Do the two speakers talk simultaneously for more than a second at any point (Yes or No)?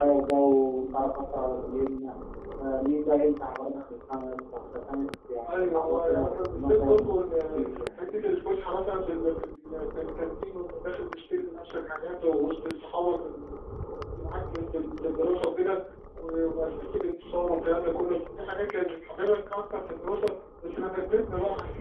Yes